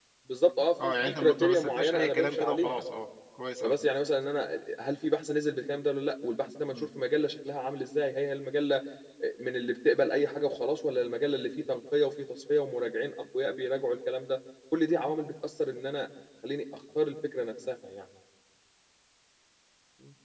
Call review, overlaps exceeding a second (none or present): present